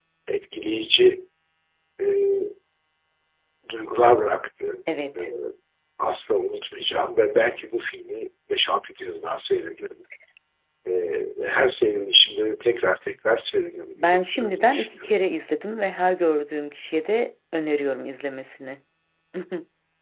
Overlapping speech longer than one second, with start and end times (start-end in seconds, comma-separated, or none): 14.0-15.2